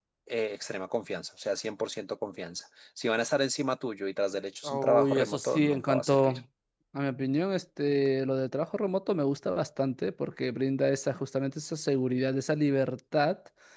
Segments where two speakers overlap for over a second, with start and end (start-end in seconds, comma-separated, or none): 4.6-6.3